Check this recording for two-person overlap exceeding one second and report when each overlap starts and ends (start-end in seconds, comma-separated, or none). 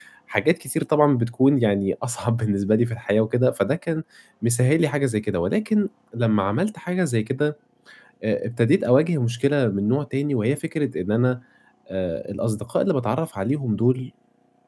none